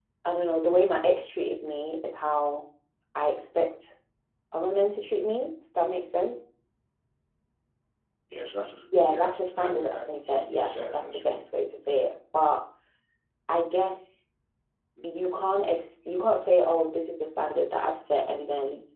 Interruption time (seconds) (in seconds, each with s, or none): 9.0 s